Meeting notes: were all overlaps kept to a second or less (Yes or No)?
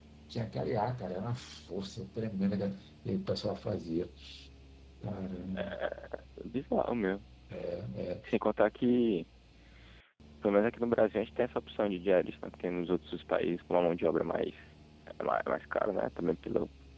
Yes